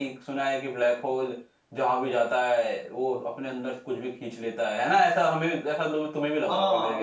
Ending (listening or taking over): taking over